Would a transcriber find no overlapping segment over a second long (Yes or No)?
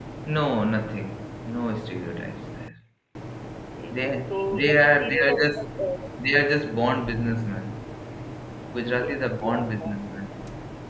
No